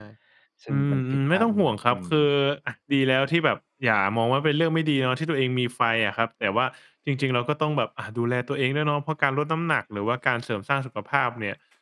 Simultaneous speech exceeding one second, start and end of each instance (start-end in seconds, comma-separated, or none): 0.7-2.3